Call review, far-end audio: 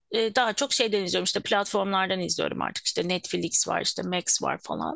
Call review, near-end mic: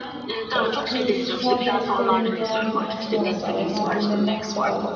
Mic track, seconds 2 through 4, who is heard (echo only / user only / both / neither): both